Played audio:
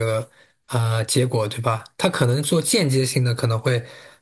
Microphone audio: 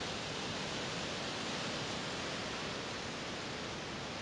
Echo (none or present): none